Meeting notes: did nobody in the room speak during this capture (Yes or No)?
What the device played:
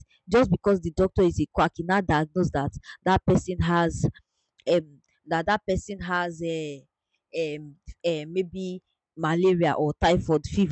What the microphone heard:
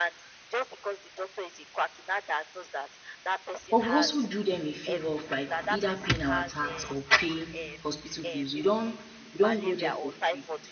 No